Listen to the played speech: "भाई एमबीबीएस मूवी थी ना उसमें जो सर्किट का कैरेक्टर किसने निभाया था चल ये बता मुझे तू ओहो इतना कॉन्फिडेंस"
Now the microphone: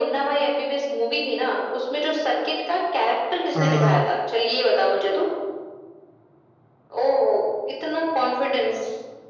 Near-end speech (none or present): present